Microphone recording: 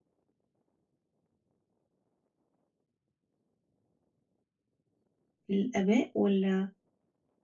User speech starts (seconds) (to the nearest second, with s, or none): 5 s